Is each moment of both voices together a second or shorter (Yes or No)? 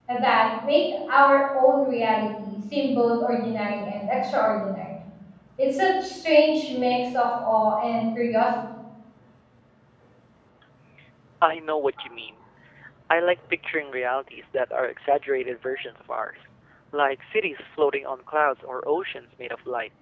Yes